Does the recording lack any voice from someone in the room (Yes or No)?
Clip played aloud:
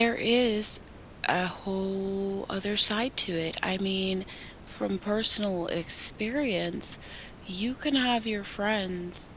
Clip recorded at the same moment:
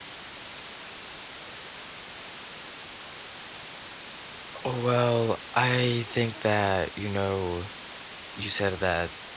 No